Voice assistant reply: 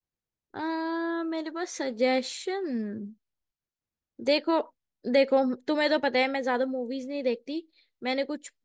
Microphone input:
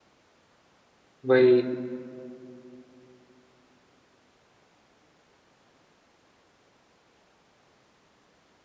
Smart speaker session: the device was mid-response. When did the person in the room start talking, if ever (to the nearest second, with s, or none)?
1 s